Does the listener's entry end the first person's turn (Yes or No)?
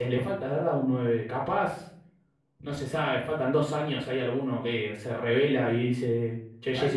Yes